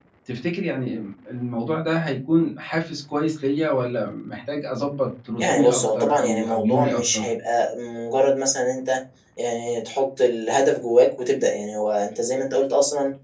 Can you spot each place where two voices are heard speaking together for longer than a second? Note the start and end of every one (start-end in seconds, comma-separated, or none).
5.4-7.2